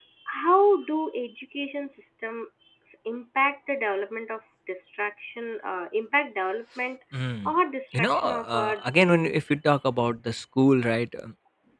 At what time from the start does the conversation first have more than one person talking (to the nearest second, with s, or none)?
8 s